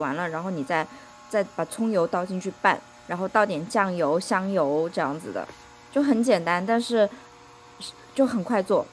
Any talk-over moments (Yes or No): No